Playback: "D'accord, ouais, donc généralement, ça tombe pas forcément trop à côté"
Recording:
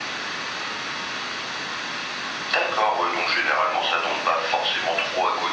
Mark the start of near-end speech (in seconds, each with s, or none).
none